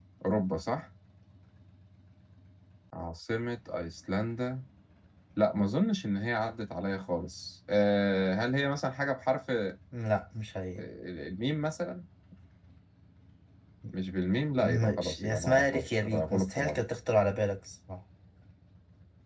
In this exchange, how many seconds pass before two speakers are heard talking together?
15 s

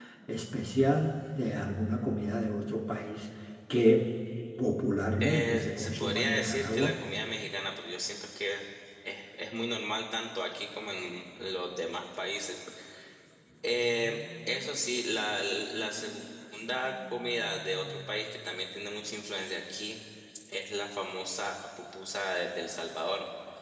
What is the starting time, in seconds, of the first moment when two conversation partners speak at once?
5 s

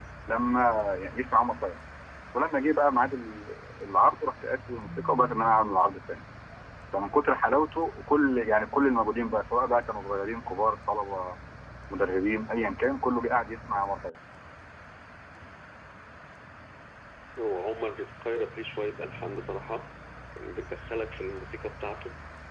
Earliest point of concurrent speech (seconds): none

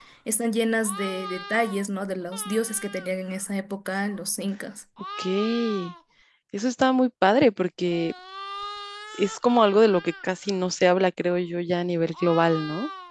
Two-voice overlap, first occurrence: none

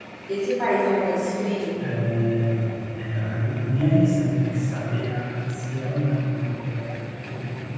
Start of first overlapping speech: none

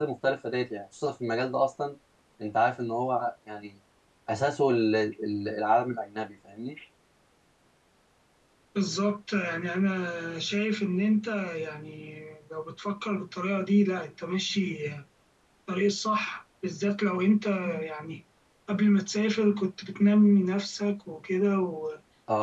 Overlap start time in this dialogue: none

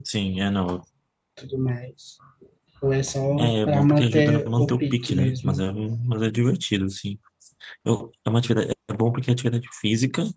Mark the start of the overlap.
3 s

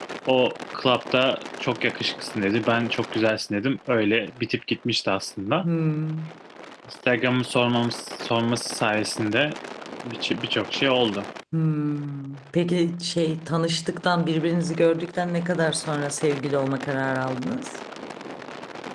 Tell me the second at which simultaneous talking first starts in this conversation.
none

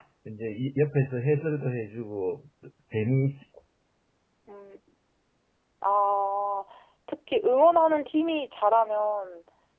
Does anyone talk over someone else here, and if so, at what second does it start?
none

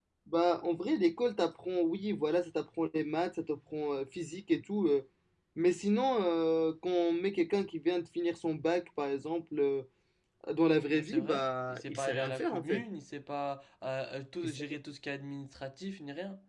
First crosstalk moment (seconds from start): 11 s

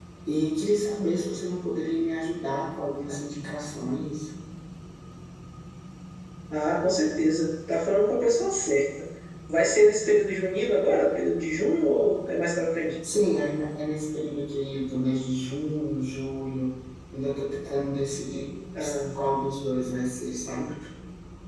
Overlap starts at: none

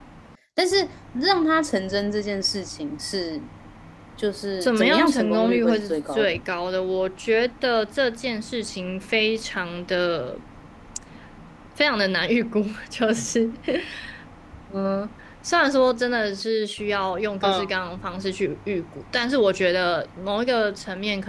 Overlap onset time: 5 s

